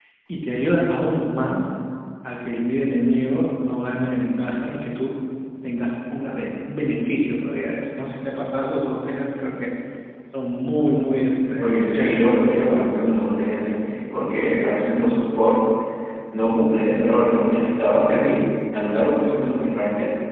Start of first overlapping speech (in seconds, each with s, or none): 11.6 s